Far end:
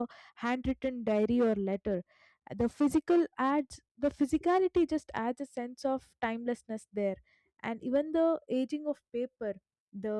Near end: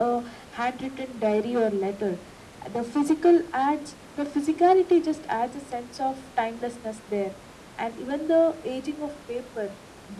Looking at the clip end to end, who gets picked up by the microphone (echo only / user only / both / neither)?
echo only